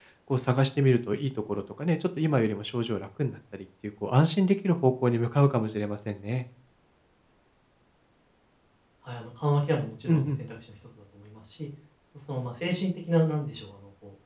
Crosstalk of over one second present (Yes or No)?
No